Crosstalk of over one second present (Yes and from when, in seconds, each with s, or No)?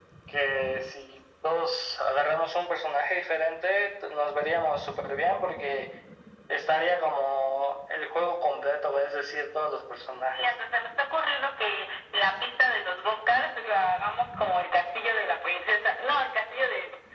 No